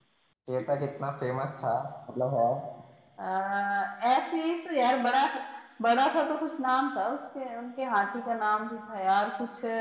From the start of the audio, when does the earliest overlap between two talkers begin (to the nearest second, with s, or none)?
none